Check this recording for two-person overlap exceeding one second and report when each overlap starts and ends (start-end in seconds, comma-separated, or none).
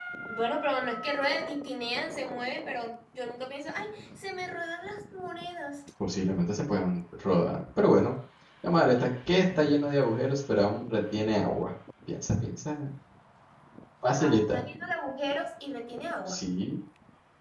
none